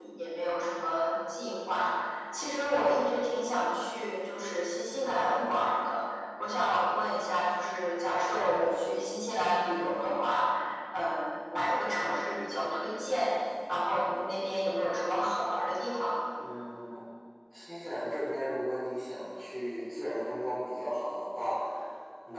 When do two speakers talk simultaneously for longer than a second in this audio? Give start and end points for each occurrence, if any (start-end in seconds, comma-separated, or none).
none